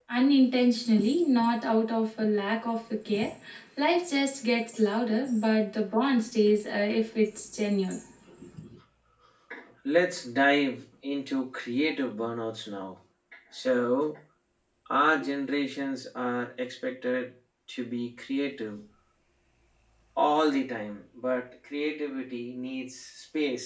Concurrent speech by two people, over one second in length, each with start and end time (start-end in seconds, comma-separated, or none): none